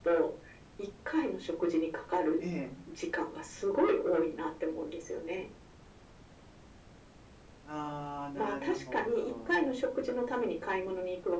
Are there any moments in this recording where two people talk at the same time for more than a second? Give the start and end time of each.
8.3-9.6

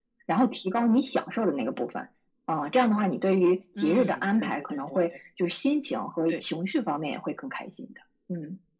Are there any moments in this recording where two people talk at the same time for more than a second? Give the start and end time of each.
3.8-5.0

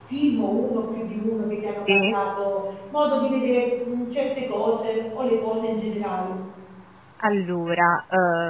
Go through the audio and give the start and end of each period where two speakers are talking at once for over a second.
none

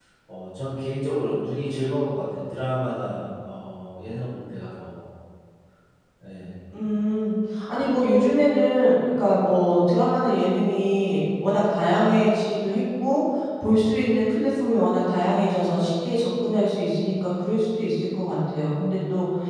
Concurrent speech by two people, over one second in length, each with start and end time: none

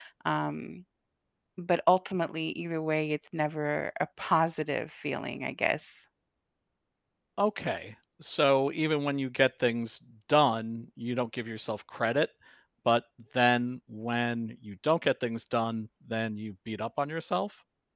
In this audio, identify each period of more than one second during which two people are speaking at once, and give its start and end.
none

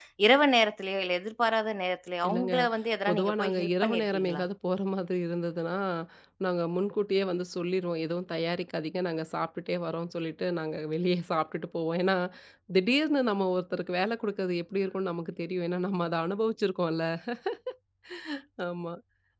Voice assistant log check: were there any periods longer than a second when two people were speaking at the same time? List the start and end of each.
3.1-4.4

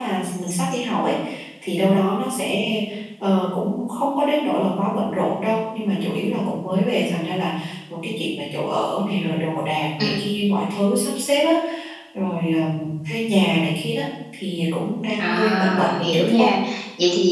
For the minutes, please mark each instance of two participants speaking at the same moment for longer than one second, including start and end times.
15.2-16.5

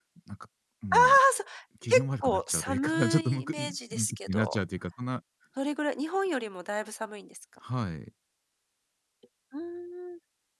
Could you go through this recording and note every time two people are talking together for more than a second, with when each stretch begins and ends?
1.9-4.6

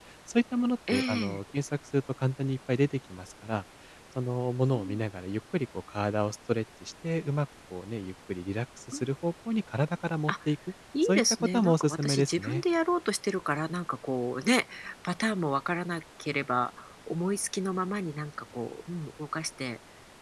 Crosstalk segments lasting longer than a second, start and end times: 11.0-12.6

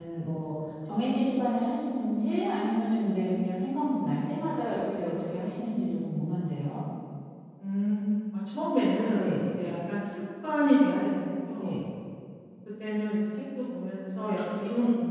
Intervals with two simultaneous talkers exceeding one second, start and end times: none

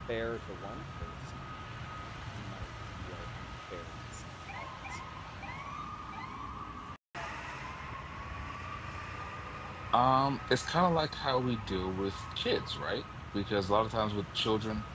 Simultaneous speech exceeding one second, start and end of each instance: none

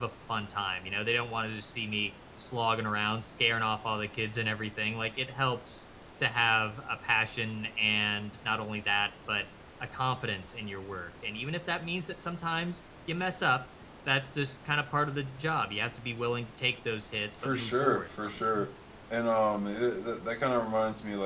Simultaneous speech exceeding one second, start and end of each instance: 17.4-18.6

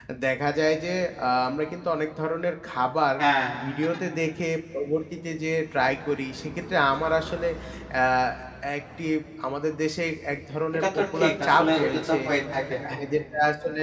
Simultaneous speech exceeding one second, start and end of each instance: 10.7-12.2

